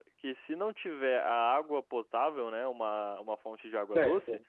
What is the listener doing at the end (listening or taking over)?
listening